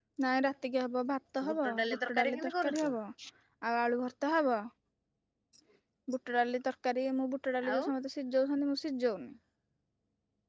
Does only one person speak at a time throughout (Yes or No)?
No